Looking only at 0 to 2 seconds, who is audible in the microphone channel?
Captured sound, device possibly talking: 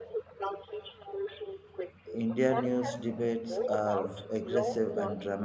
echo only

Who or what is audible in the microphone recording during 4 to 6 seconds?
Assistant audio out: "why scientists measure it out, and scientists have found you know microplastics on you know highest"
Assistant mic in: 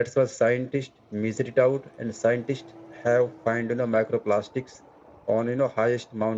echo only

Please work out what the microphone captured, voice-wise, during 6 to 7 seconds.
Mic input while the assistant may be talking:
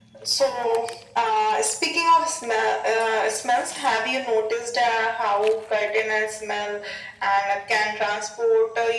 echo only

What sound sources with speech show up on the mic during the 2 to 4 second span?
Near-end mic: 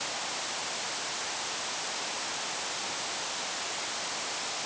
neither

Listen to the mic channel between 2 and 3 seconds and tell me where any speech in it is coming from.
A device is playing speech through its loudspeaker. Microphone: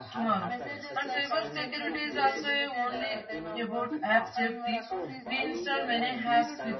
both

